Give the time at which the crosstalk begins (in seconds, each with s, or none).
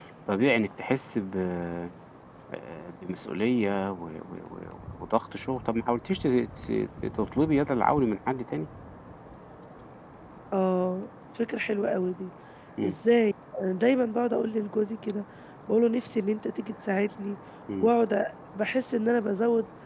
none